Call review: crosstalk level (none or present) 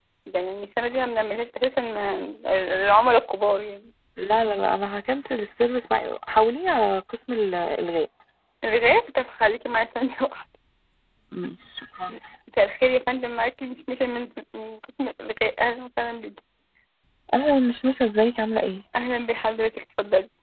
none